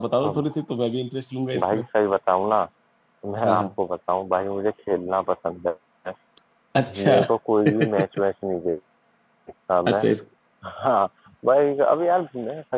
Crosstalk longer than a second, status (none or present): none